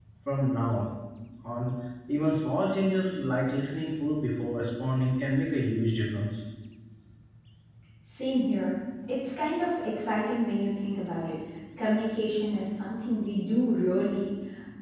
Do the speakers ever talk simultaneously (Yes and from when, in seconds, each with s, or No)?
No